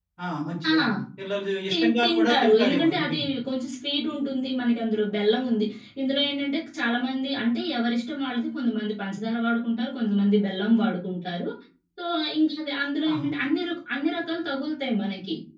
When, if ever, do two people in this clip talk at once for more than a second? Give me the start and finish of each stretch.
1.7-3.2

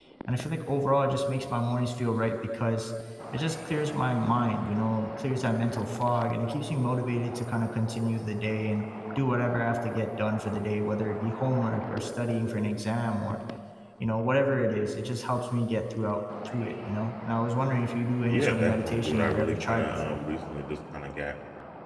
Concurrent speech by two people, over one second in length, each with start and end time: 18.3-20.2

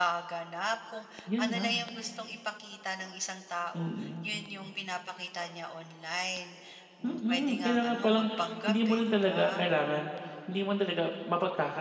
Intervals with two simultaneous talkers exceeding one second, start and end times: 7.0-9.4

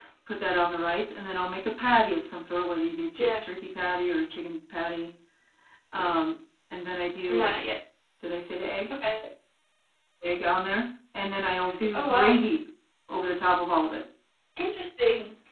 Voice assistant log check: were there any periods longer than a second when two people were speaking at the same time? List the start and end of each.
none

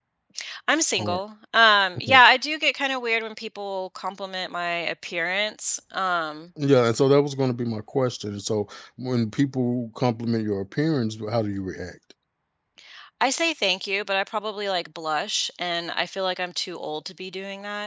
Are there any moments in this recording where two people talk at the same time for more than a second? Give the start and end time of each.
none

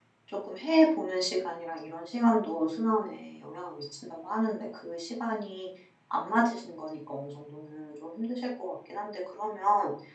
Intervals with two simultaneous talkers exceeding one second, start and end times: none

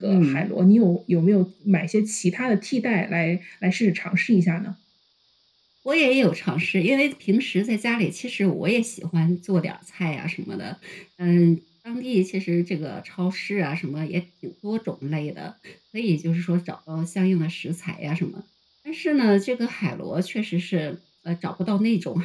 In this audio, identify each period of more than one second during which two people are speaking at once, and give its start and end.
none

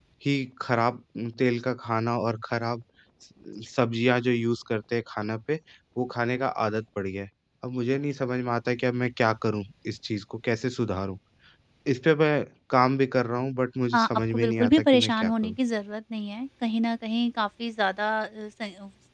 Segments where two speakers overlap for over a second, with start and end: 13.9-15.6

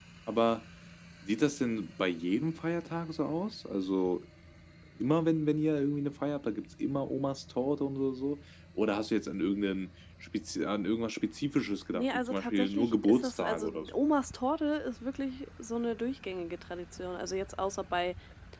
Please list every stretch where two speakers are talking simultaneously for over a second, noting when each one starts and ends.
11.9-13.9

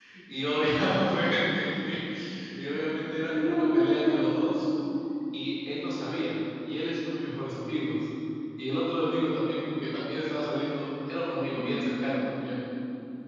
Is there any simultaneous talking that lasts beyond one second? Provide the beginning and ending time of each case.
3.3-4.7

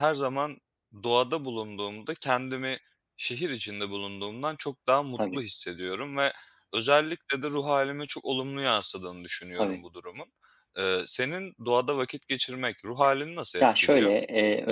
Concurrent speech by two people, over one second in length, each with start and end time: none

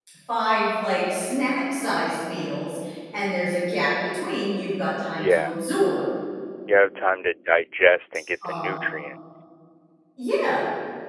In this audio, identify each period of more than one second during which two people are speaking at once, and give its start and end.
none

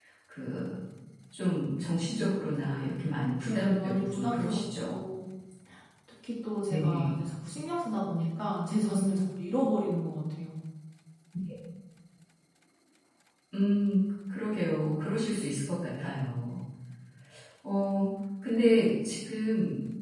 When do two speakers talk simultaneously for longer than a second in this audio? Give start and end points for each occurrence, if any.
3.5-4.9

